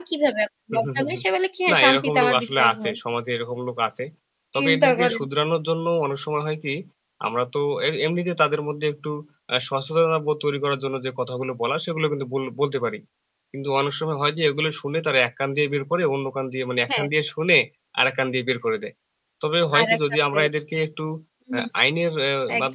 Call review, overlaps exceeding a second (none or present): present